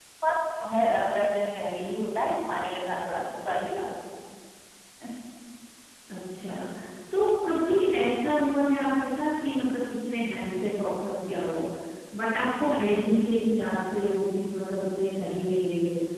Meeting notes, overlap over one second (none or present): none